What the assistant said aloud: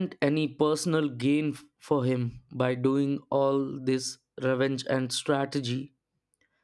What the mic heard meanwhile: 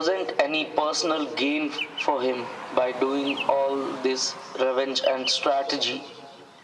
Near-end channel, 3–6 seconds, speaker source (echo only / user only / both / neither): echo only